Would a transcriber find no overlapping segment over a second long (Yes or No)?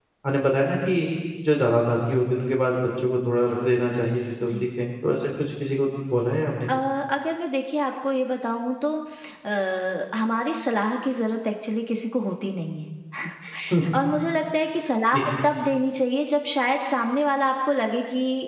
Yes